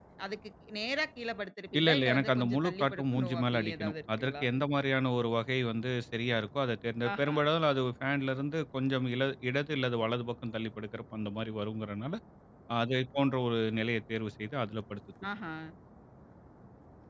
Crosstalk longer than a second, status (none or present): present